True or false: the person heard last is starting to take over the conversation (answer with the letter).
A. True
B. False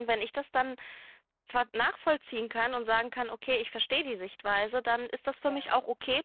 B